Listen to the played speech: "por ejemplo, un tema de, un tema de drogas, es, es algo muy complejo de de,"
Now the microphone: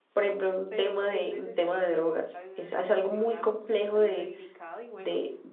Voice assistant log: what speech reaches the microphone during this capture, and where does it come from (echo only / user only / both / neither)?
both